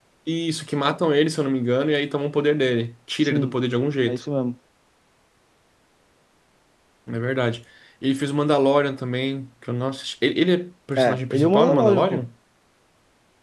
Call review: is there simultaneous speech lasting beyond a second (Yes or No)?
Yes